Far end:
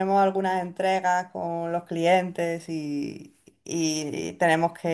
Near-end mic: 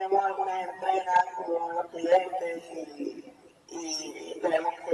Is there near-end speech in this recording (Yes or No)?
No